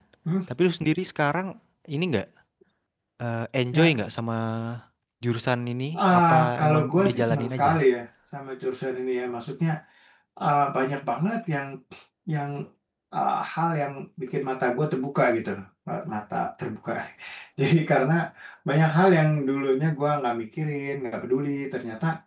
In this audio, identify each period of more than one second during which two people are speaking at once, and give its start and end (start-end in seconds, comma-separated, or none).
6.1-7.7